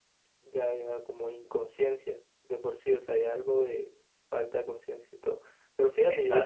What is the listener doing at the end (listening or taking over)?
listening